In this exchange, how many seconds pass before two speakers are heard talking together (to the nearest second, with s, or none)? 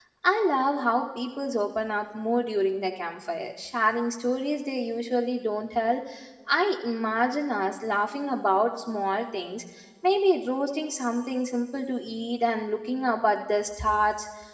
none